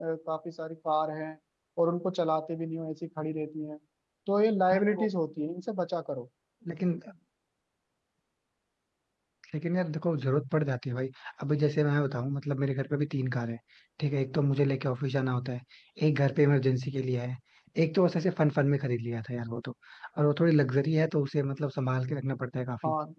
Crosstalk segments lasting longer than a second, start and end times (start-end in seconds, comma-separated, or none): none